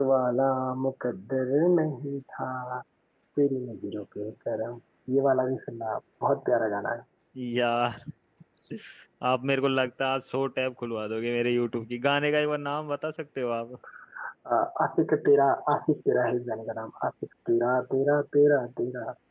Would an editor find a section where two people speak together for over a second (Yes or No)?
No